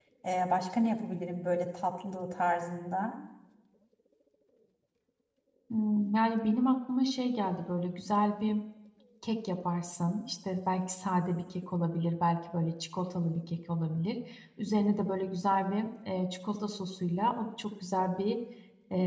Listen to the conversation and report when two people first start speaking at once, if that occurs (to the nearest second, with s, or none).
none